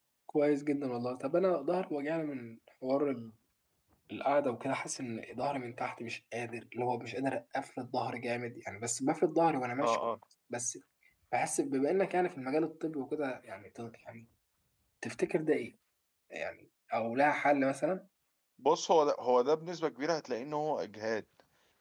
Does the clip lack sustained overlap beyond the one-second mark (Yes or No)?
Yes